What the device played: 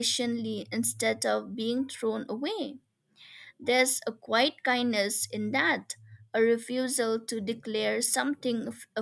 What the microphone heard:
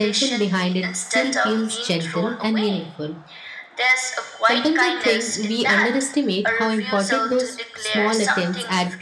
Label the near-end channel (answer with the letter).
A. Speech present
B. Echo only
A